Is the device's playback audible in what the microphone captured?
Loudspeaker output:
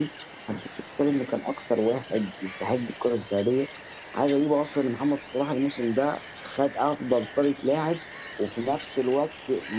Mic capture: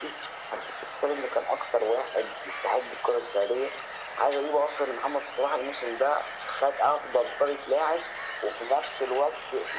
Yes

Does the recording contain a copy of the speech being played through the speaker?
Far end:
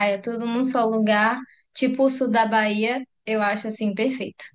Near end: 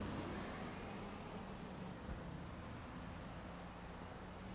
No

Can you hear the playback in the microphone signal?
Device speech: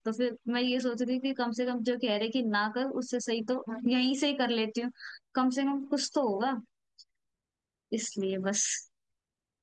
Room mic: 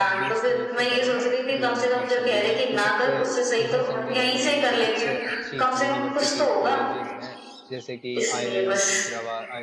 Yes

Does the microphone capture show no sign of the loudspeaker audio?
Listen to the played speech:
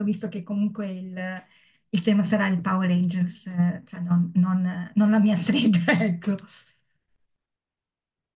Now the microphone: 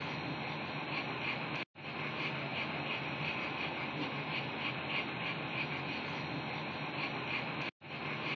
Yes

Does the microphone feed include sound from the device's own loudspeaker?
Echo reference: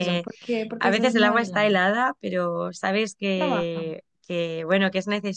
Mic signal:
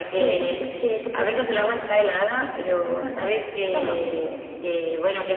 Yes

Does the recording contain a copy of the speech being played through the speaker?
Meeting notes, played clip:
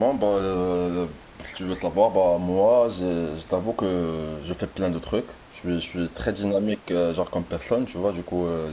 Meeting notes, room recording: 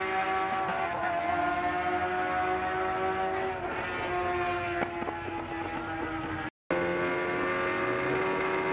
No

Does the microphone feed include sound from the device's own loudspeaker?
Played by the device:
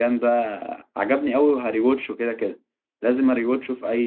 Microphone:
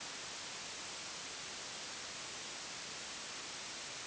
No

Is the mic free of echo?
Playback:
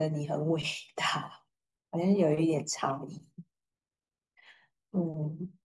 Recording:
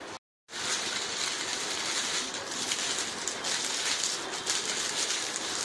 Yes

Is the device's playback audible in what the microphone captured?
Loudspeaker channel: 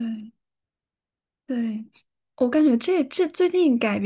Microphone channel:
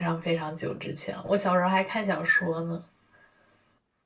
No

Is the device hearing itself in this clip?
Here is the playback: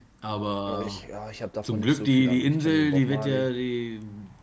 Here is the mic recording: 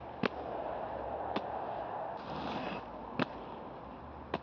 No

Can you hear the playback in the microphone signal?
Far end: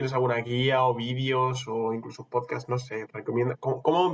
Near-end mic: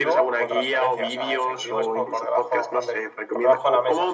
Yes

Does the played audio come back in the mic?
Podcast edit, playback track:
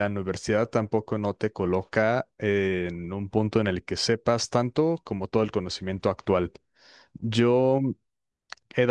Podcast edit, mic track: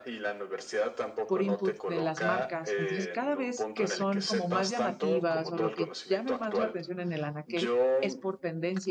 Yes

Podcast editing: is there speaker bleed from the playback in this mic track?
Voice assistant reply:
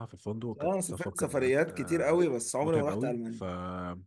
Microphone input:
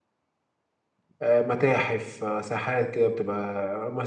No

